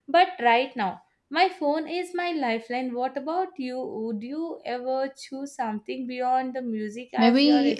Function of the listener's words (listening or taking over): taking over